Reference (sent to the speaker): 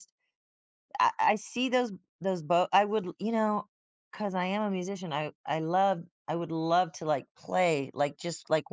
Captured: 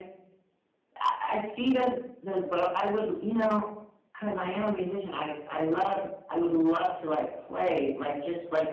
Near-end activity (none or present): none